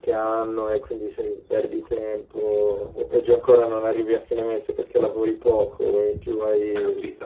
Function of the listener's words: taking over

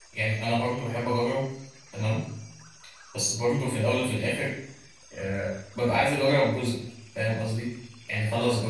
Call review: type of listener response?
listening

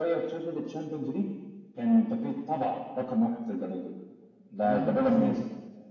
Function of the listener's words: taking over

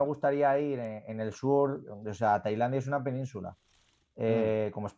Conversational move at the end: listening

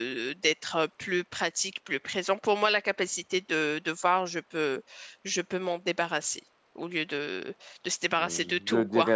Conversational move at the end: taking over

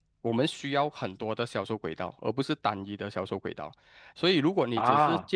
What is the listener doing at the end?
listening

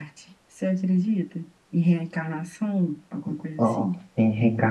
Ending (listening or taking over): taking over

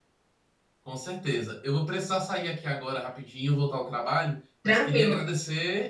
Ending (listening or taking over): listening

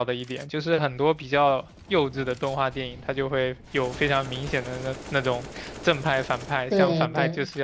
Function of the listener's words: listening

